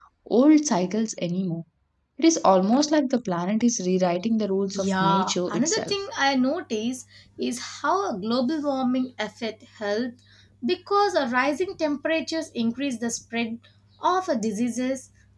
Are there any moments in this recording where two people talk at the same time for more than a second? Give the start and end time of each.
4.7-6.0

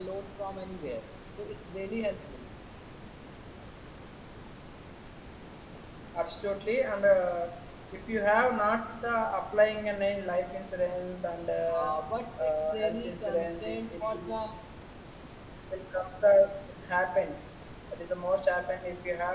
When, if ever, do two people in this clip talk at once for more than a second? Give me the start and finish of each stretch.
12.4-14.3

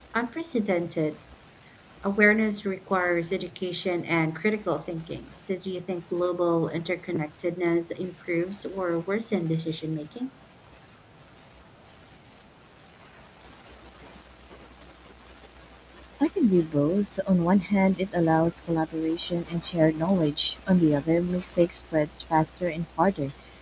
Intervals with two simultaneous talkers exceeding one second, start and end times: none

